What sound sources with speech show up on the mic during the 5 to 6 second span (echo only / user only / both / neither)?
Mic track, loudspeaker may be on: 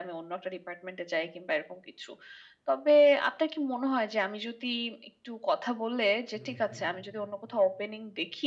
echo only